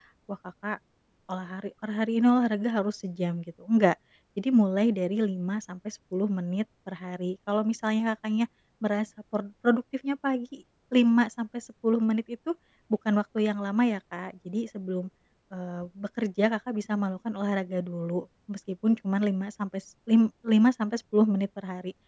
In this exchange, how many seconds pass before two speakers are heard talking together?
none

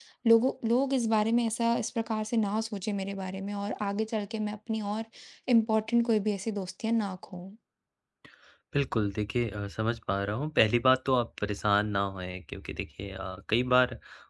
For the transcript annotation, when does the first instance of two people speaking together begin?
none

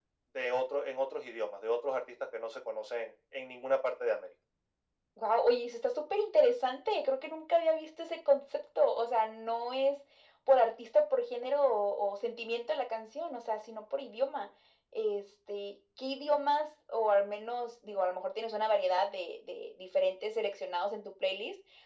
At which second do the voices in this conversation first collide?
none

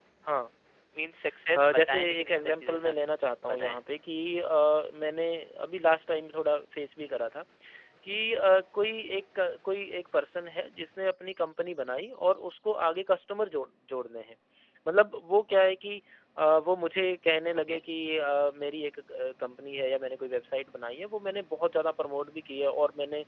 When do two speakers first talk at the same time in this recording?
1.6 s

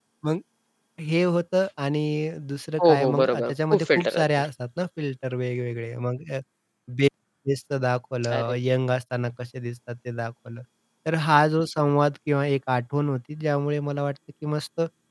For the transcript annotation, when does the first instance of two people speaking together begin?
2.8 s

